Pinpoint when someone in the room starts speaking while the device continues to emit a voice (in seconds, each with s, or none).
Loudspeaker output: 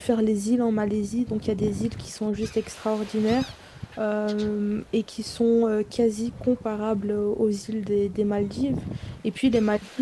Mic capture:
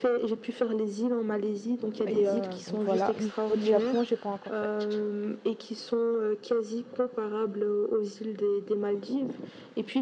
2.0 s